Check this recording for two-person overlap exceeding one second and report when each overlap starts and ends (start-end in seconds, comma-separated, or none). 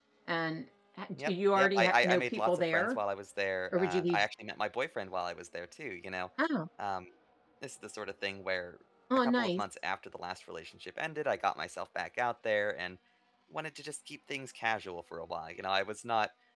1.3-3.0